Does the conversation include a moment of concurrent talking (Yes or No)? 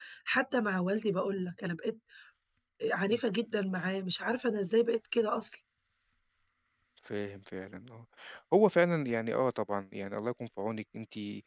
No